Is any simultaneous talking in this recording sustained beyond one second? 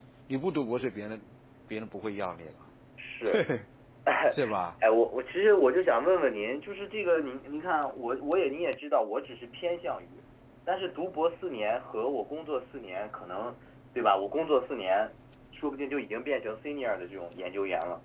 No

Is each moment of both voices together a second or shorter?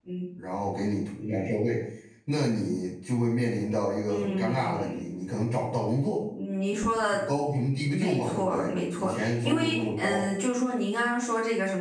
No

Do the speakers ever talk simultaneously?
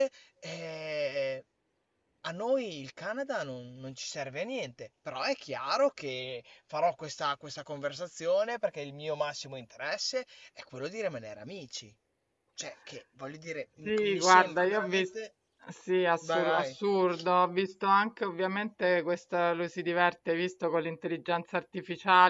Yes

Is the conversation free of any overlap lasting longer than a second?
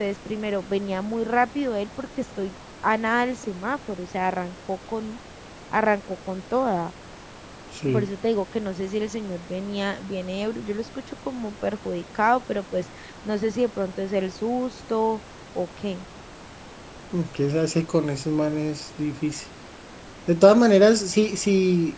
Yes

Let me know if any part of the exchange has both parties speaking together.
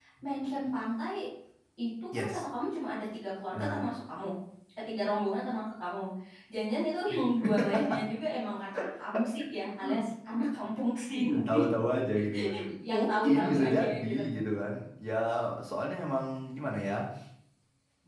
Yes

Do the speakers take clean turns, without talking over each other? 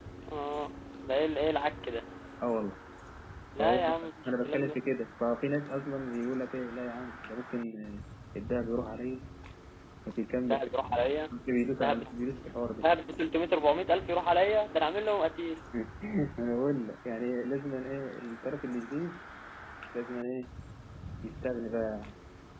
No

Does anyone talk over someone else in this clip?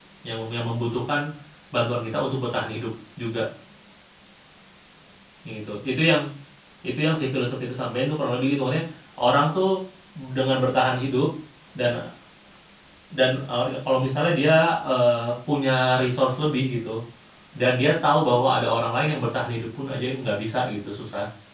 No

